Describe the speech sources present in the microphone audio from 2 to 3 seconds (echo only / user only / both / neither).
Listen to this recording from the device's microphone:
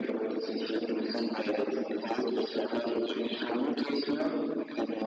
echo only